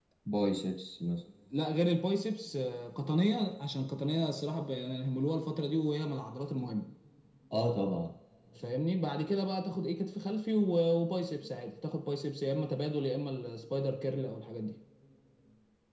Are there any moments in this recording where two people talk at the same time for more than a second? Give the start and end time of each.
none

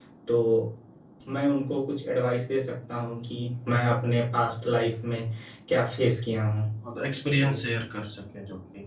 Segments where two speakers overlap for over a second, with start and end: none

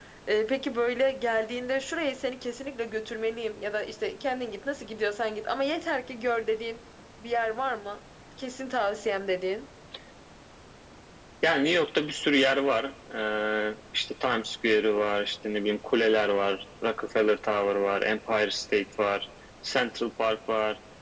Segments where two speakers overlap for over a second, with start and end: none

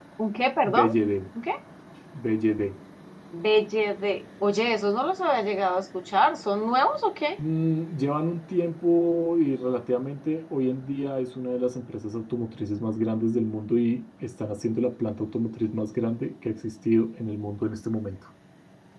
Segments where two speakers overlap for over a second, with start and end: none

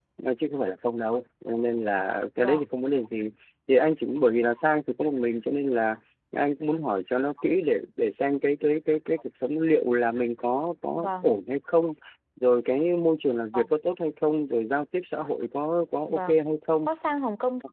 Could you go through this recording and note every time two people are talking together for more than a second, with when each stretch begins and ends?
none

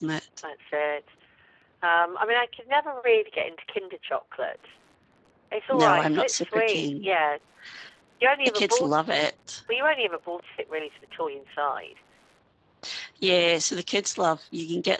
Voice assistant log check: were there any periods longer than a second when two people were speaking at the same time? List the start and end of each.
5.7-7.1

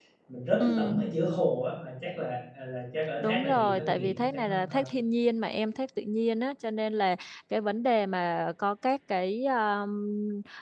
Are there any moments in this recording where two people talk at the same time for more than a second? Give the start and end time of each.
3.2-4.8

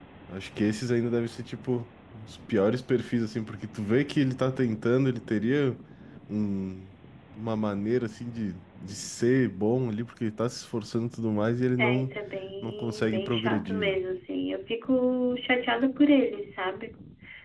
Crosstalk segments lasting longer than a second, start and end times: 12.6-14.0

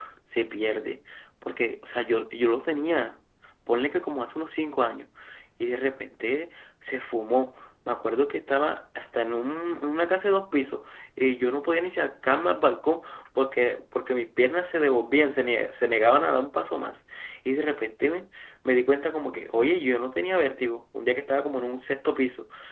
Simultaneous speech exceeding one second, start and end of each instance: none

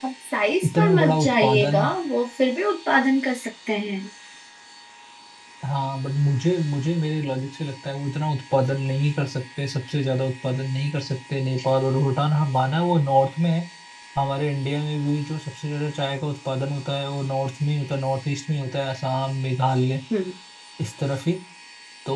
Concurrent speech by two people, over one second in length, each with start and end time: 0.6-1.8

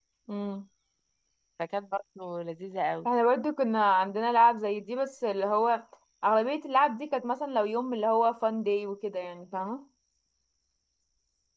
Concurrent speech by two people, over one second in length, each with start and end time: none

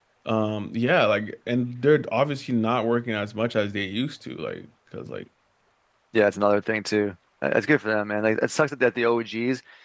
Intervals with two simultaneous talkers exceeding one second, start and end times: none

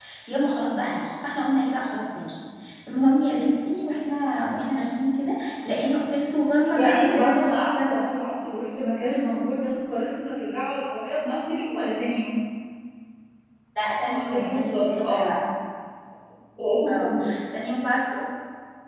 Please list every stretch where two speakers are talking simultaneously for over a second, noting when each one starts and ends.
6.8-8.2, 14.1-15.3

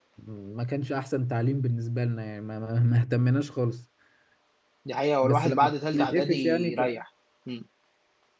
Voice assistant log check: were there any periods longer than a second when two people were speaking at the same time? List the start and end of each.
5.2-6.9

